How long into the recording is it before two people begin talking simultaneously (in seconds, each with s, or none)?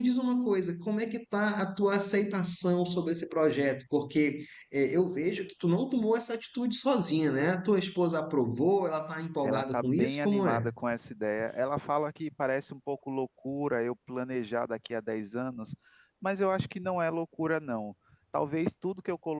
9.4 s